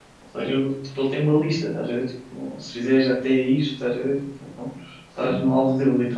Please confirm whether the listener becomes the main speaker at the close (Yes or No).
No